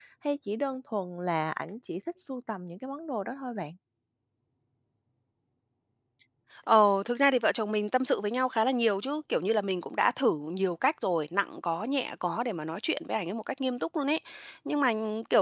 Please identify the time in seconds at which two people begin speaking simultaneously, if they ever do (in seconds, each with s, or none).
none